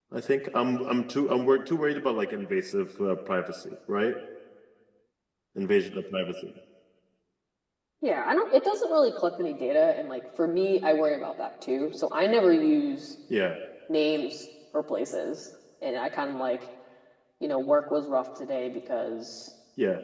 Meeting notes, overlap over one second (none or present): none